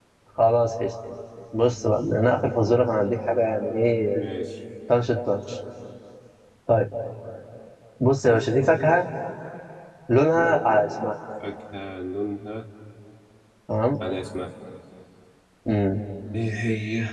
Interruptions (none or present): none